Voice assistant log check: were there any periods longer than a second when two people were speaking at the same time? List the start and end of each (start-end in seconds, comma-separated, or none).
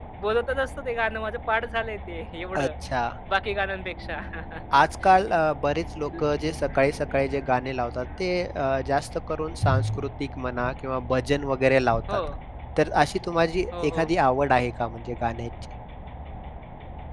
none